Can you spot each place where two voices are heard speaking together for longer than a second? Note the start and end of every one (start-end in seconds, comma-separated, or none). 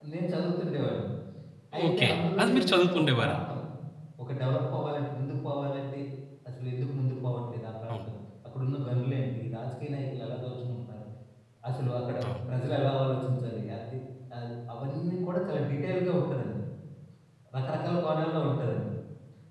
1.9-3.4